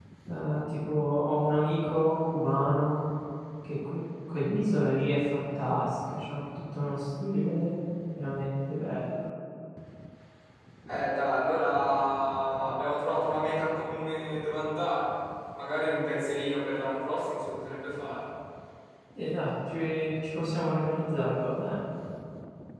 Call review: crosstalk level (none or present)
none